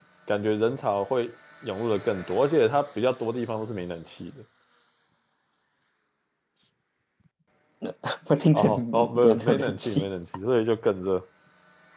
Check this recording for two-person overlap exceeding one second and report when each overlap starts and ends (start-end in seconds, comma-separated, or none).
8.5-10.0